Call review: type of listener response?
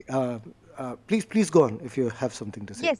taking over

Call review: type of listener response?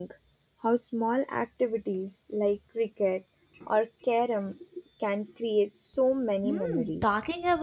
taking over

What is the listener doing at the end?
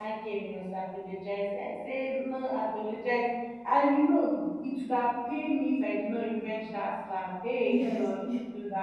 listening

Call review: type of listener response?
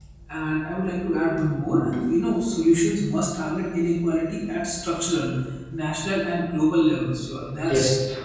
listening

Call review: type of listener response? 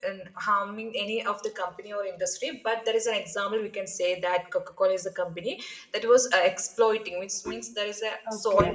taking over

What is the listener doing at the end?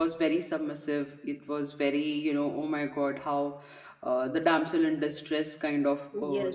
taking over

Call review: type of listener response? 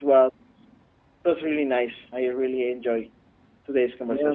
taking over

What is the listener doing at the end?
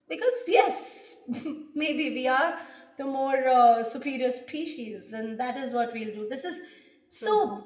taking over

